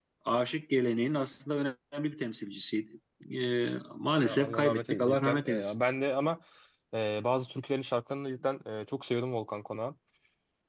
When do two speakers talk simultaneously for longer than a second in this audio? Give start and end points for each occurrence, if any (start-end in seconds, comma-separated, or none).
4.2-5.8